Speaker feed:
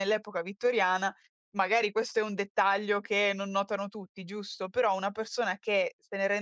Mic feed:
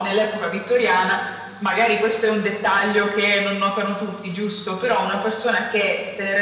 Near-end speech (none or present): none